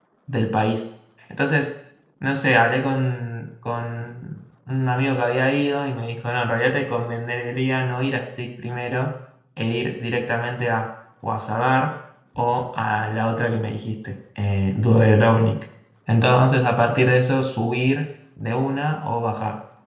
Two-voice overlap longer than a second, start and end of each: none

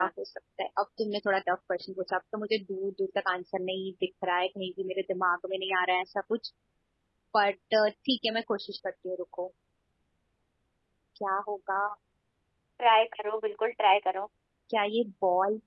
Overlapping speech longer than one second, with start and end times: none

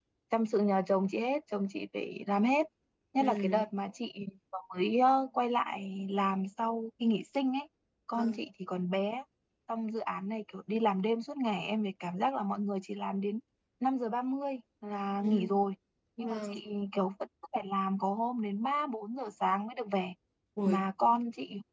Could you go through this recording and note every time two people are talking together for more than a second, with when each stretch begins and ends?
none

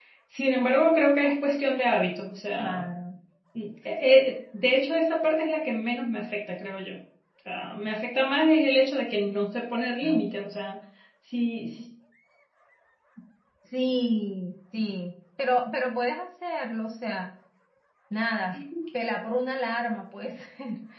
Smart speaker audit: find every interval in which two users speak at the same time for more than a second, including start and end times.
none

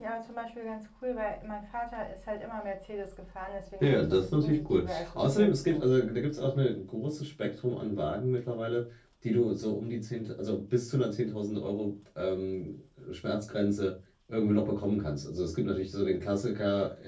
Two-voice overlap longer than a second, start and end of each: 3.8-6.0

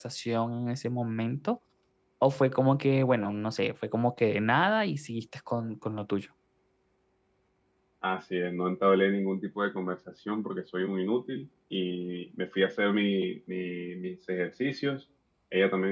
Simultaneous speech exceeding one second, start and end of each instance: none

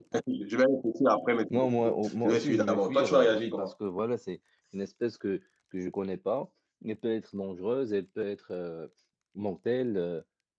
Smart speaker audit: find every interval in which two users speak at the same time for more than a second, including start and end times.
2.2-3.7

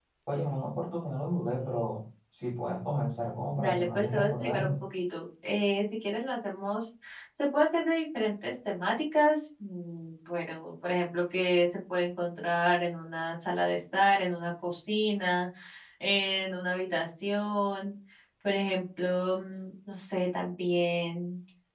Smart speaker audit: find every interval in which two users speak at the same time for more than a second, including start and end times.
3.6-4.8

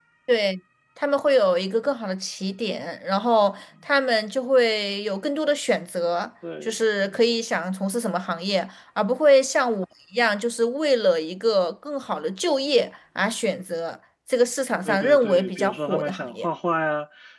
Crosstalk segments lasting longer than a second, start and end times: 14.8-16.5

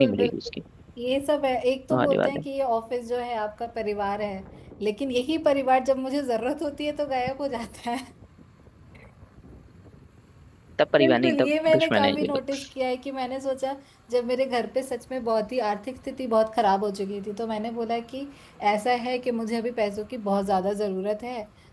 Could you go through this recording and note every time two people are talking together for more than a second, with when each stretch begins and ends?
11.0-12.4

